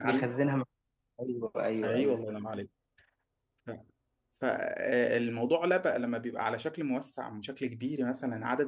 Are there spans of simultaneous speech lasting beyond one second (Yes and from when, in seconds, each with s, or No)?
No